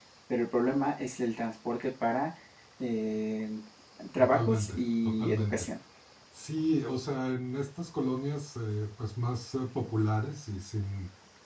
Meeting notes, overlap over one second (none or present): present